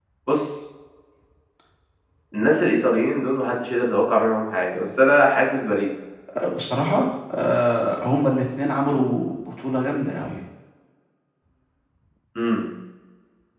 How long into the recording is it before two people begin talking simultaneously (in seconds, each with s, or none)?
none